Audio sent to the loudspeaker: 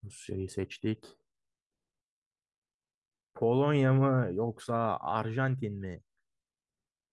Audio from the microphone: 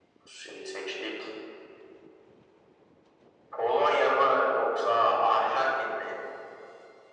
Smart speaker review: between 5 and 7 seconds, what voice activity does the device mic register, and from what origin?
echo only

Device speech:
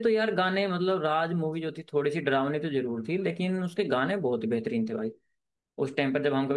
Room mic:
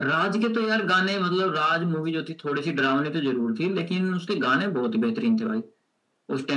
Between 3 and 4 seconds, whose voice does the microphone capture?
echo only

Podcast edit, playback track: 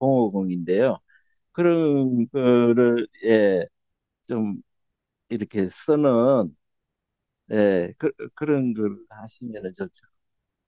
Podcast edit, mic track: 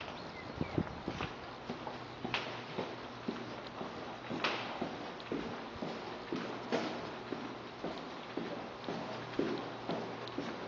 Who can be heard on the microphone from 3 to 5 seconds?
neither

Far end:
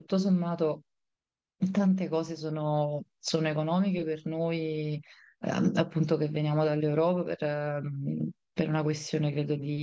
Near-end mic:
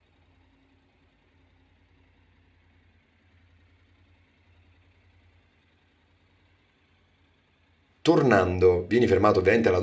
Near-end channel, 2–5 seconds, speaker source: neither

